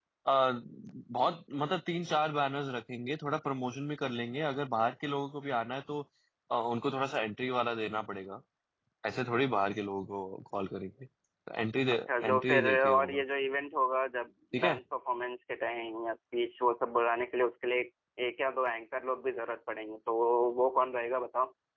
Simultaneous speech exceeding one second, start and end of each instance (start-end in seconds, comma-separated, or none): 11.9-13.2